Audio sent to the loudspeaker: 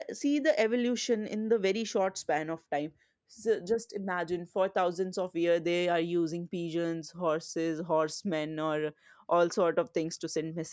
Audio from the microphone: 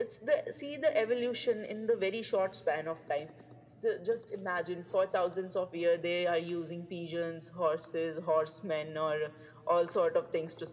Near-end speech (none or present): none